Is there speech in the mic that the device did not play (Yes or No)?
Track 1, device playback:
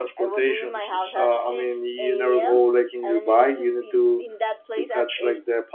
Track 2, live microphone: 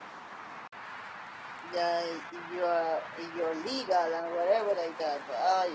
Yes